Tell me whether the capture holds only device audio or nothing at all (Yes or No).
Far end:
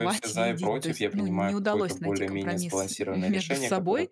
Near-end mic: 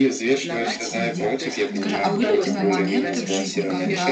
No